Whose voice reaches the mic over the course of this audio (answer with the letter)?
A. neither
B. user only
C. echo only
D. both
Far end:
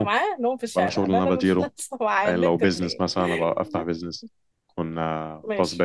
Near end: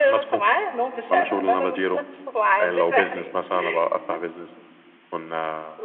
D